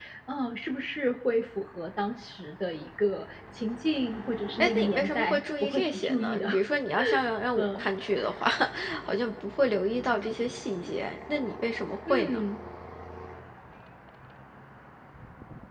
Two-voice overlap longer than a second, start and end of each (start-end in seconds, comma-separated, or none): 4.6-6.5